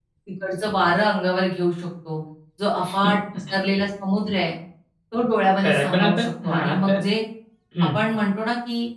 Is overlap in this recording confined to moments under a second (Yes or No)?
No